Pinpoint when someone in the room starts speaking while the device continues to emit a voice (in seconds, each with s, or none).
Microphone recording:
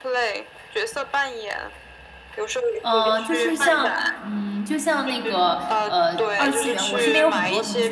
2.8 s